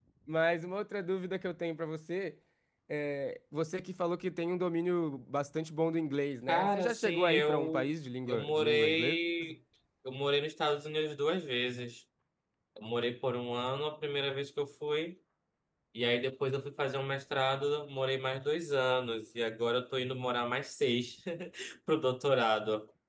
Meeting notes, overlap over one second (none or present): present